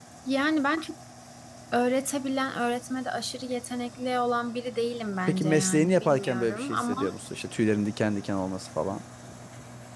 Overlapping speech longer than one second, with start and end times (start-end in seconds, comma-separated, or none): 5.3-6.9